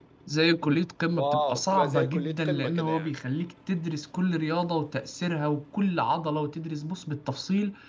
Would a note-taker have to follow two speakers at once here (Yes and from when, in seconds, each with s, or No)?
Yes, from 1.1 s